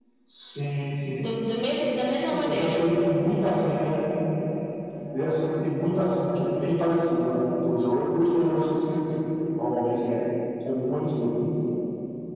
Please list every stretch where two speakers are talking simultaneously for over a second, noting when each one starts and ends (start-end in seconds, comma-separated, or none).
none